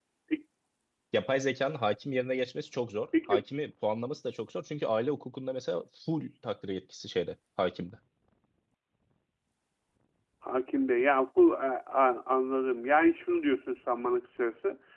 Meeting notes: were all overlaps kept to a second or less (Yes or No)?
Yes